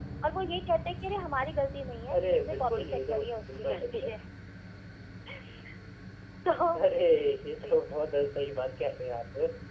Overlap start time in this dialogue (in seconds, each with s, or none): 2.1 s